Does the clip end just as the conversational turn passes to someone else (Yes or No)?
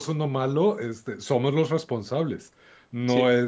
No